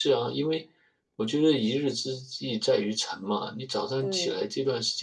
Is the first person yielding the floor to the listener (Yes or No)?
No